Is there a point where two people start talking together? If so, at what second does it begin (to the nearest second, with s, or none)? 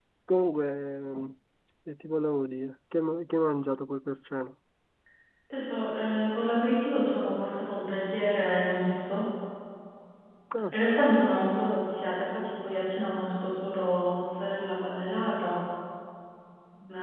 none